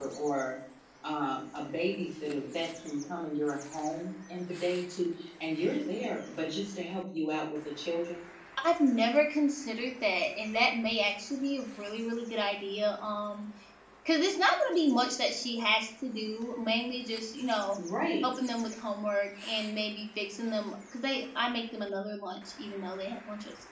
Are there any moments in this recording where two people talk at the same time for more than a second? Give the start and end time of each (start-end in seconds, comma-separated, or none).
none